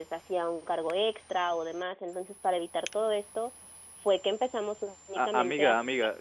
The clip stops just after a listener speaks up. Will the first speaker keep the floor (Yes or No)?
No